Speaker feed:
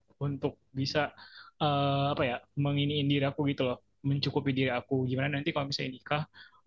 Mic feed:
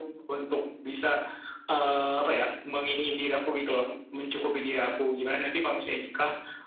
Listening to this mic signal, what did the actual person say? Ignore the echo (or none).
none